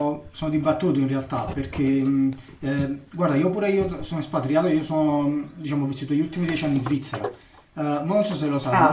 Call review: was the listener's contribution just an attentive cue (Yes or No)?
Yes